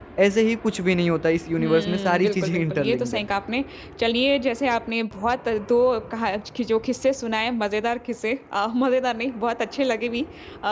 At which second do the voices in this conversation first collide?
1.6 s

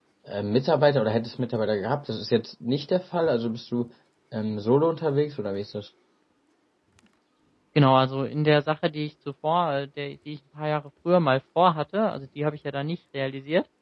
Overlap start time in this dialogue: none

